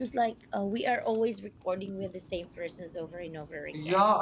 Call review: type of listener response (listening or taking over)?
taking over